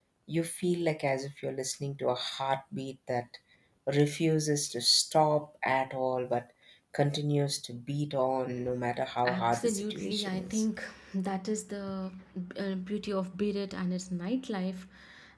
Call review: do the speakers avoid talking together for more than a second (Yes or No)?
No